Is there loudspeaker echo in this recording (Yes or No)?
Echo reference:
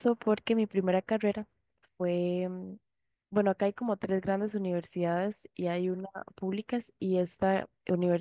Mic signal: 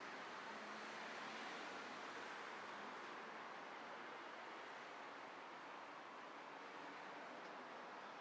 No